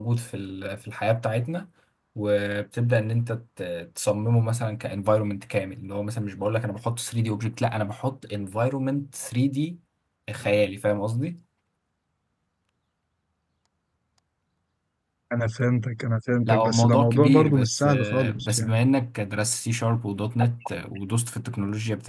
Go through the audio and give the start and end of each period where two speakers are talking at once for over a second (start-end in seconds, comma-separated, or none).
16.4-18.8